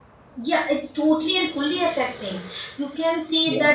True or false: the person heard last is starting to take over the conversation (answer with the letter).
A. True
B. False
B